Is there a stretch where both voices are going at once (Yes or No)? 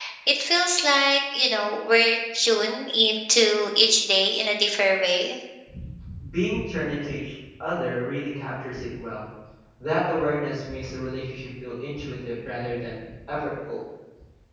No